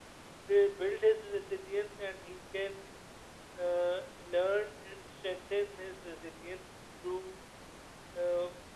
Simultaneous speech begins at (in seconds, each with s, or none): none